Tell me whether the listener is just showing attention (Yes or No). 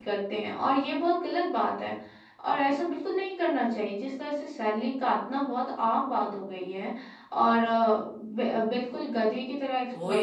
Yes